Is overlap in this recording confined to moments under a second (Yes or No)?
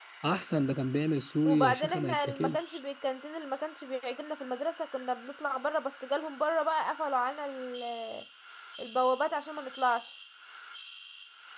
No